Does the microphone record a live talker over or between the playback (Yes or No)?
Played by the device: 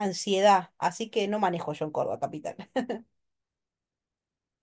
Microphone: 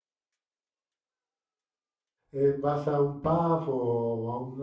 Yes